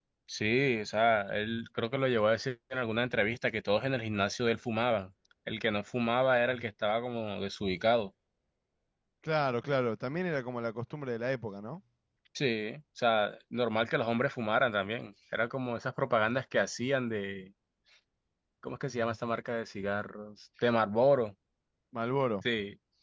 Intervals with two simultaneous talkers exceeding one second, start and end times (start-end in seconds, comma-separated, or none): none